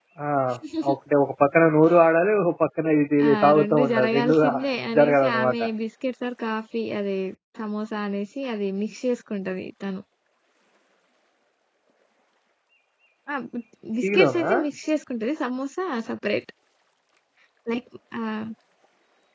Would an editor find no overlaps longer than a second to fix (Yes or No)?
No